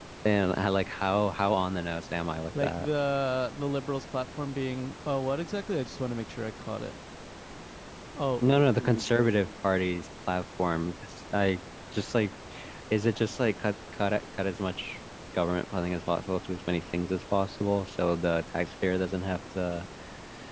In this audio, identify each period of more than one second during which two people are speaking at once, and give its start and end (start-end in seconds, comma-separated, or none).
none